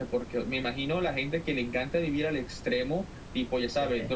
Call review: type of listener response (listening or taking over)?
listening